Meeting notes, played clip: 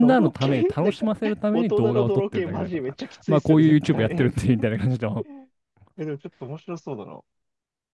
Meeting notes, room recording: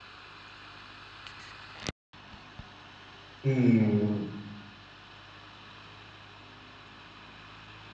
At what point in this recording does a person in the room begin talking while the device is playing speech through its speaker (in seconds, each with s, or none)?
3.4 s